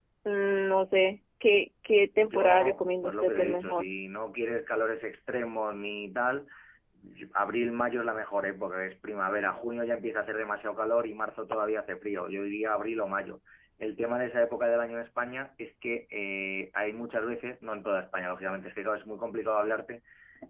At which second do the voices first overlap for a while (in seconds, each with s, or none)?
2.2 s